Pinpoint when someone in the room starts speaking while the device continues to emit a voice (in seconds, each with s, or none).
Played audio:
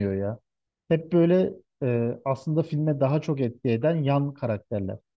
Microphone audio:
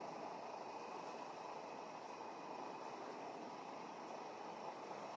none